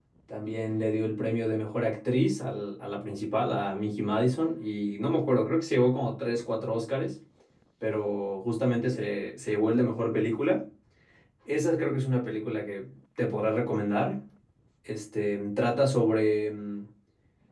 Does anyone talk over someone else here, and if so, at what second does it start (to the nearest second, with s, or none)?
none